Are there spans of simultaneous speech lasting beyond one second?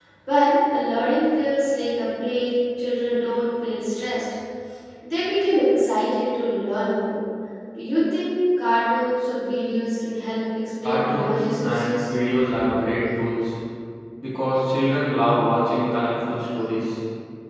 Yes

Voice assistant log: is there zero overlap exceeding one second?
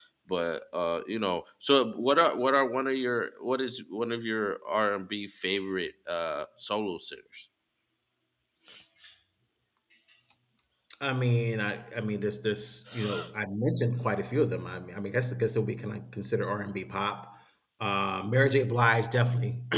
Yes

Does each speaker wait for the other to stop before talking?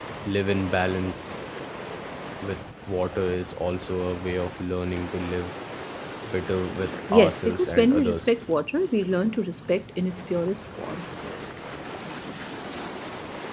No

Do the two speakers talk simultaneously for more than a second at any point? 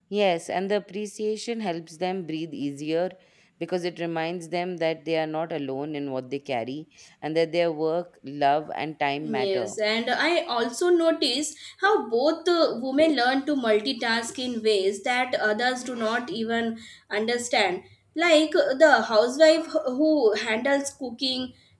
No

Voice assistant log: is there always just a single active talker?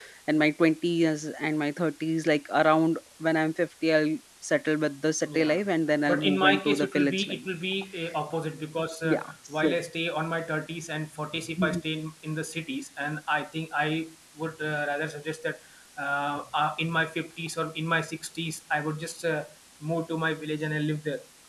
No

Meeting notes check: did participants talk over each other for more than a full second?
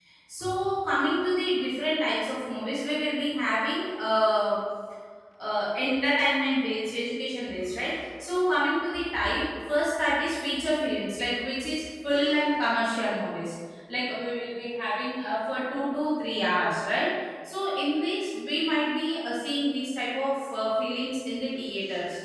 No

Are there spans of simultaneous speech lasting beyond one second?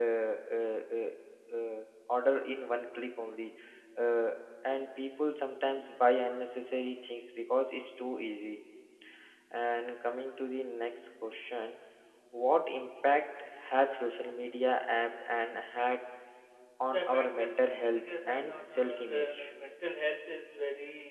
Yes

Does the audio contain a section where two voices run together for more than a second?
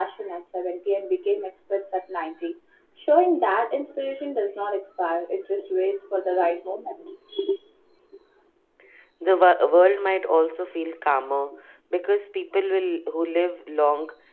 No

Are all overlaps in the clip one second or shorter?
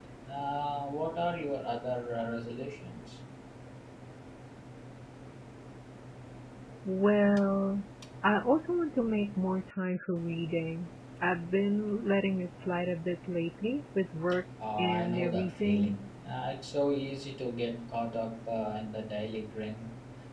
No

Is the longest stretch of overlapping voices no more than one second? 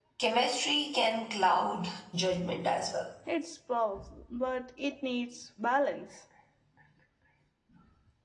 Yes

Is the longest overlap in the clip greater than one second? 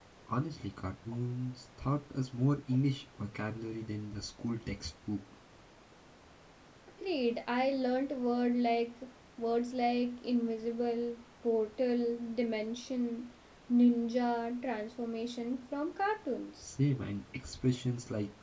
No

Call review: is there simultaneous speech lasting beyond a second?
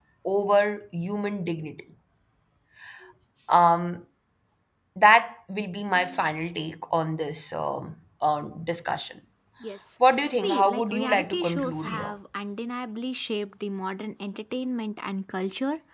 Yes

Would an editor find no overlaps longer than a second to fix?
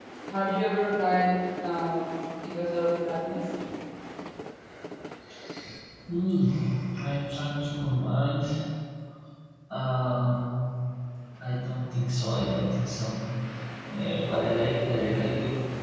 Yes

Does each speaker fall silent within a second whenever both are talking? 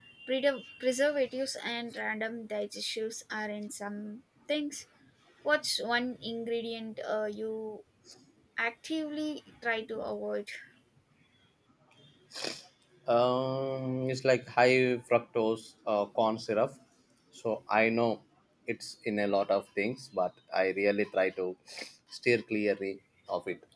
Yes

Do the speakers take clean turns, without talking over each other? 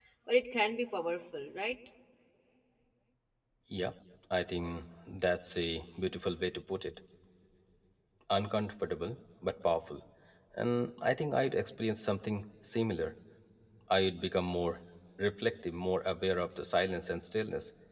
Yes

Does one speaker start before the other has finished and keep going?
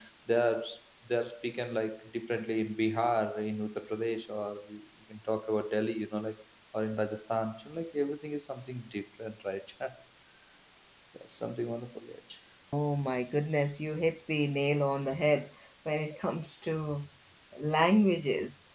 No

